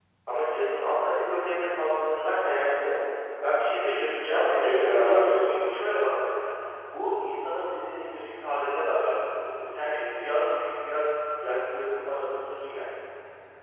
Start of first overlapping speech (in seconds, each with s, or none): 4.2 s